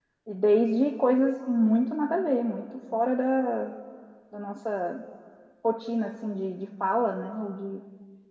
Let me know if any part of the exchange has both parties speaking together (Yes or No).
No